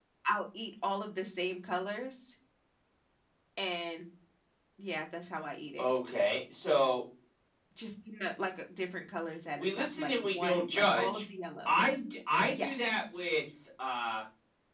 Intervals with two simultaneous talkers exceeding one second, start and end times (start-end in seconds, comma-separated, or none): 9.6-11.2